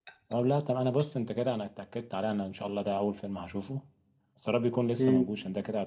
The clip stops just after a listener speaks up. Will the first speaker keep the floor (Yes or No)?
Yes